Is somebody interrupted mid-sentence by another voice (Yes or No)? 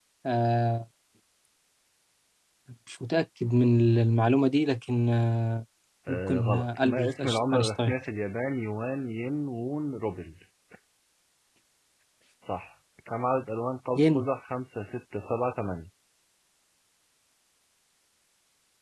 Yes